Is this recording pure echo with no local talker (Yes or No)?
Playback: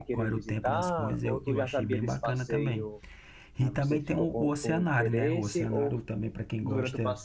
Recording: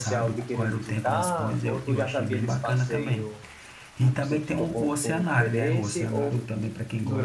Yes